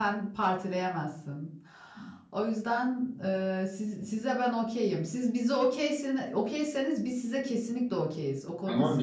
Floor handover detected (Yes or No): Yes